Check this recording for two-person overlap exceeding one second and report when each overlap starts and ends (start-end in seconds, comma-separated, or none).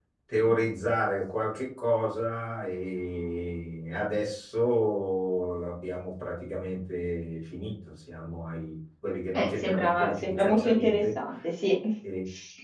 9.4-11.0